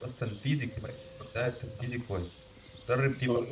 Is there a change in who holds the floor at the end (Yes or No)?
No